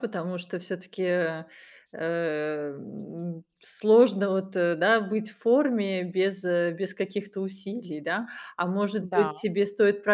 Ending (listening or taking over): listening